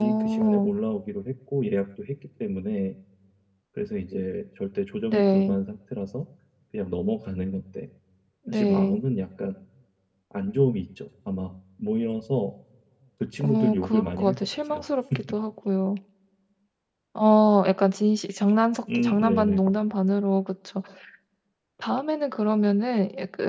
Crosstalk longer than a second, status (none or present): present